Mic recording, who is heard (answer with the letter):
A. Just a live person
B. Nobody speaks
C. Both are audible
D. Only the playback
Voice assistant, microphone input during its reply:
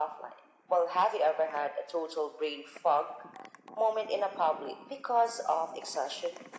D